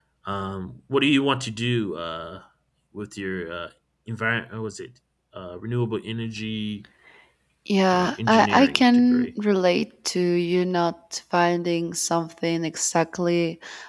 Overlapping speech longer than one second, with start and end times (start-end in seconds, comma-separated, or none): 7.9-9.3